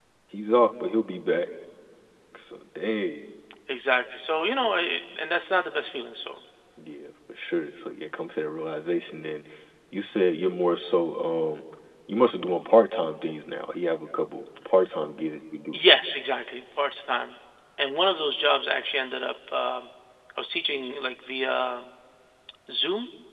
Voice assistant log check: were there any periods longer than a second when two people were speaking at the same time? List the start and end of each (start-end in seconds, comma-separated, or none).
none